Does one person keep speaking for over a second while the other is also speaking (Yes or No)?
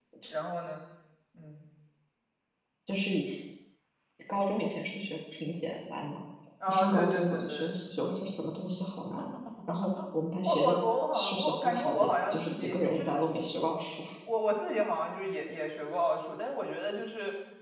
Yes